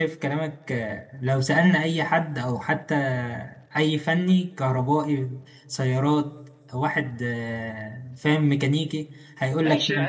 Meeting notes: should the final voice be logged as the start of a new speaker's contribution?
Yes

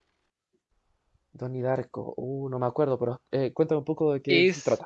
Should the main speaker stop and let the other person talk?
Yes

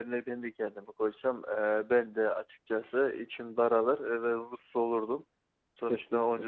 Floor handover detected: No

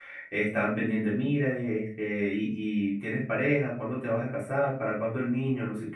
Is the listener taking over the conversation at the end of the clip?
No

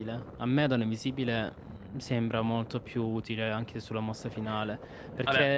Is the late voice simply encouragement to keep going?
Yes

